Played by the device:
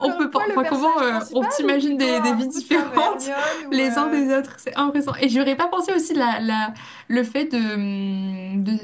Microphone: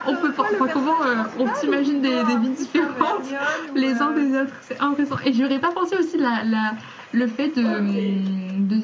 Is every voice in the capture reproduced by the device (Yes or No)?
No